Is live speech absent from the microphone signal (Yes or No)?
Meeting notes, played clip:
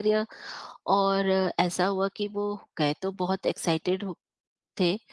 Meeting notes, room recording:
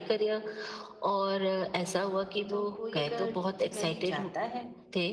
No